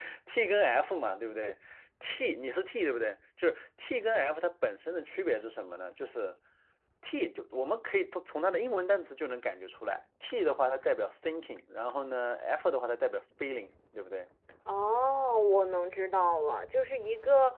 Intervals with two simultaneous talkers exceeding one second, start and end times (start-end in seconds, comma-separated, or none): none